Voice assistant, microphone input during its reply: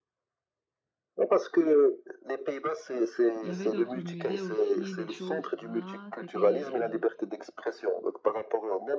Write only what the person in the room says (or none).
il y avait d'autres musées aussi, des choses rares. C'était, euh,